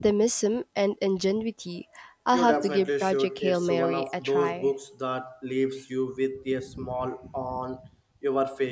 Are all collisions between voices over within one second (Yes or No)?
No